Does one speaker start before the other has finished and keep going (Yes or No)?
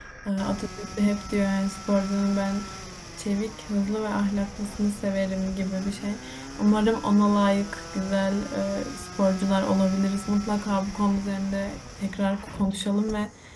No